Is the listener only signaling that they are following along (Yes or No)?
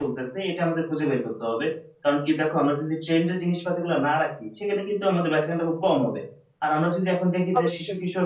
Yes